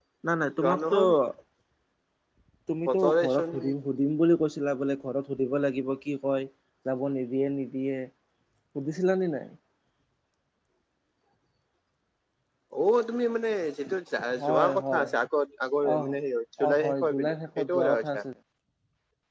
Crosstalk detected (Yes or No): Yes